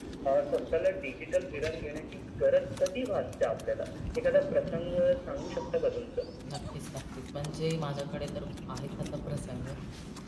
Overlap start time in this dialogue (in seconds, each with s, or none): none